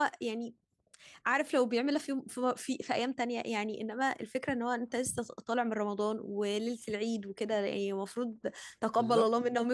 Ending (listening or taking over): listening